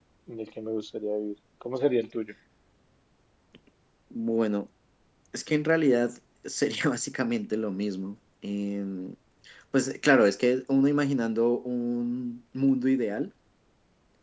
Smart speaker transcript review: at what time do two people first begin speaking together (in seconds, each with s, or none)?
none